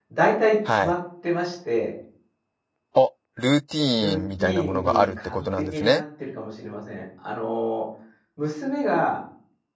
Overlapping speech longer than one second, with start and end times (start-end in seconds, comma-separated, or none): 3.9-6.0